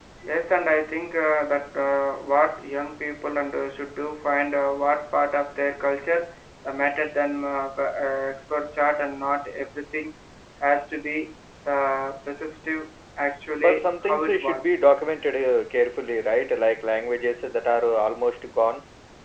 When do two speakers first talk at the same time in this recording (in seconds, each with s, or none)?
13.6 s